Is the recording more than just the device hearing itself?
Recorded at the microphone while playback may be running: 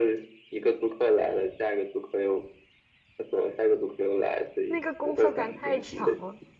Yes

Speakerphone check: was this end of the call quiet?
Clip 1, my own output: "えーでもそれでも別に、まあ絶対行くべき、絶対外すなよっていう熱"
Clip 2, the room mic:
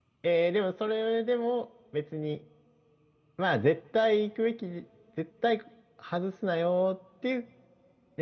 Yes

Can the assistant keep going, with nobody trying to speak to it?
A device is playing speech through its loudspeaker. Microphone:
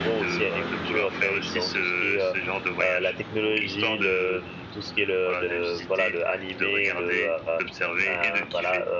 No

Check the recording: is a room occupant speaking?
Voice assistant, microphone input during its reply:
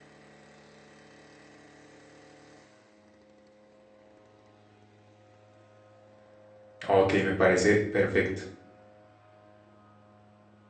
Yes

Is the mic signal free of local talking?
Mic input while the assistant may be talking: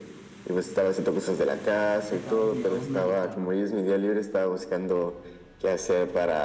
No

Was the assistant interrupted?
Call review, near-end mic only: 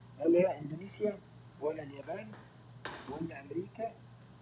No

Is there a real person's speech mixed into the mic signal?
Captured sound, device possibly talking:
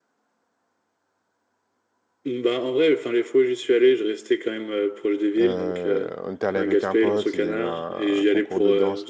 Yes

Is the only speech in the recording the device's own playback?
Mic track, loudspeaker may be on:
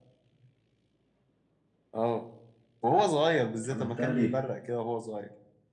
No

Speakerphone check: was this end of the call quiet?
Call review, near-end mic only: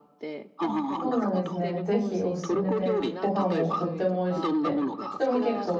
No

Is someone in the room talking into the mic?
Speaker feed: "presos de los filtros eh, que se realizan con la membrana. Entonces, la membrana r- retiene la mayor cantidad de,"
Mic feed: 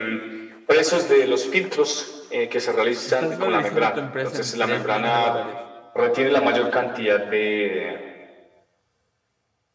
Yes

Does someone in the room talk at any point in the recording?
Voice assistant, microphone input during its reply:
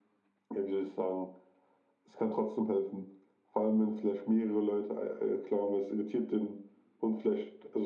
No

